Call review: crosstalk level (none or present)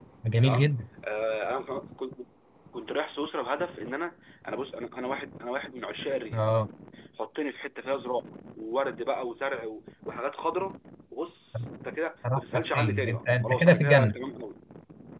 present